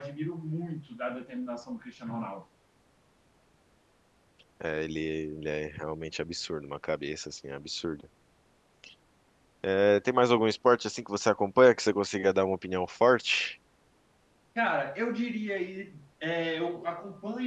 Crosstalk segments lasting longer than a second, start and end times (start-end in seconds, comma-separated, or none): none